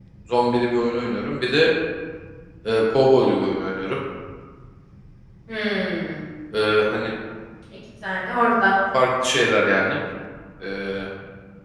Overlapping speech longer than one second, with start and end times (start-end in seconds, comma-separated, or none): none